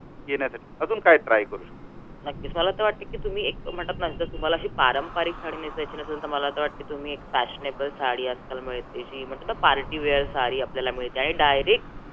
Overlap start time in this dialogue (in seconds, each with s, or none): none